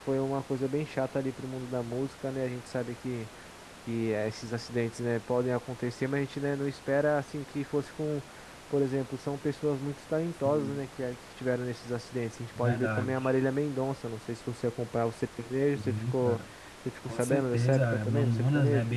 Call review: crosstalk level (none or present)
present